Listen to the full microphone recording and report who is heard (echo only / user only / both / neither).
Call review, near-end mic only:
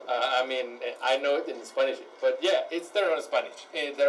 echo only